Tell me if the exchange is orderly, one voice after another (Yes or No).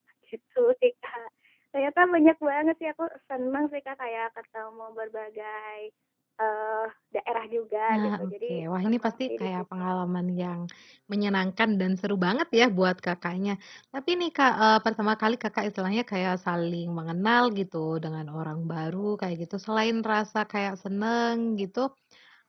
No